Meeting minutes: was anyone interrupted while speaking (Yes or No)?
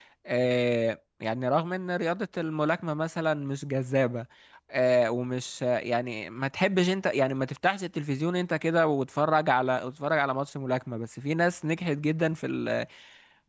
No